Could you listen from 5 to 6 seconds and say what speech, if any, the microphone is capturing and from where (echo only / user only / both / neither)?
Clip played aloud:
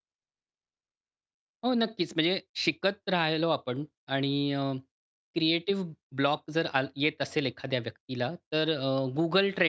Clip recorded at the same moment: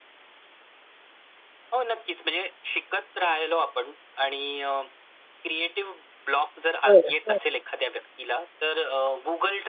echo only